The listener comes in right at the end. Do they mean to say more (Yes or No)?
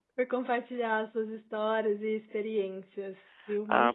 Yes